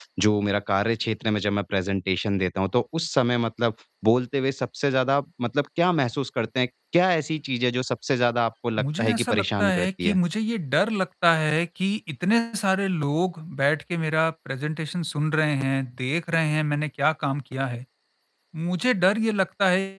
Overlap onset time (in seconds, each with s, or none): 8.8 s